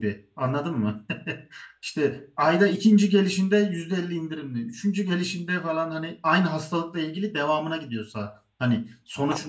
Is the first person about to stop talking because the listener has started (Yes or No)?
Yes